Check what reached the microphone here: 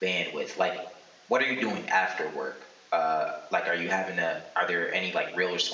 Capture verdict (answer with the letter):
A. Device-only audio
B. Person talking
B